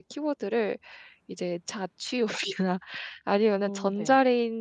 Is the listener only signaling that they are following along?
Yes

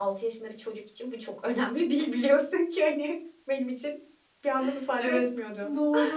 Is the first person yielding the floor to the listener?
Yes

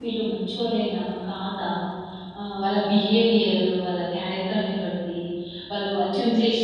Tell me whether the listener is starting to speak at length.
No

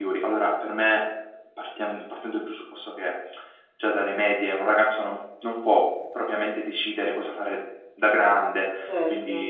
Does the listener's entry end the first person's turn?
No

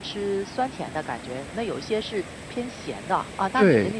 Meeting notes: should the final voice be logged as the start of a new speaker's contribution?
Yes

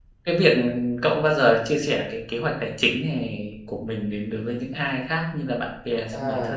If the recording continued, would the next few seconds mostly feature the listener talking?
Yes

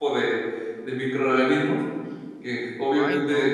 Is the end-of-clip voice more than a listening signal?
No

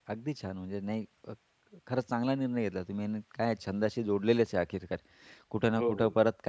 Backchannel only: Yes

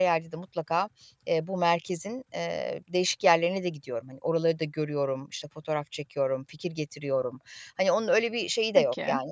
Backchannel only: Yes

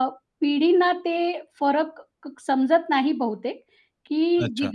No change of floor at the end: Yes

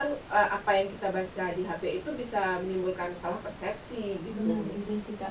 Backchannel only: No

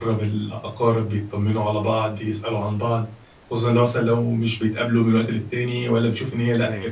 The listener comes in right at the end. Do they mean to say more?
No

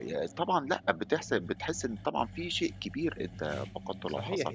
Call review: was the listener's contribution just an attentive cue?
No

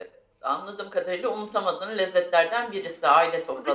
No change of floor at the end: No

